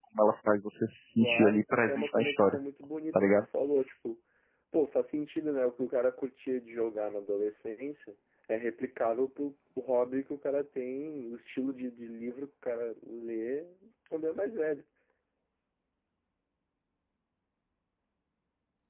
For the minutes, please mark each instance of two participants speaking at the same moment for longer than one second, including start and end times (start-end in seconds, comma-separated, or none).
1.2-2.6